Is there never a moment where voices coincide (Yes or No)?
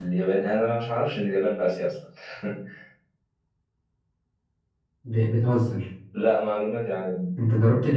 Yes